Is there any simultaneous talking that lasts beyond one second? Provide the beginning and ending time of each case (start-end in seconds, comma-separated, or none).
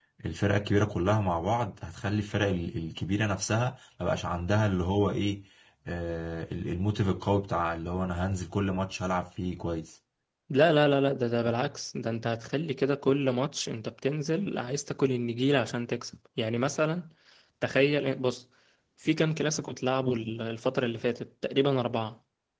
none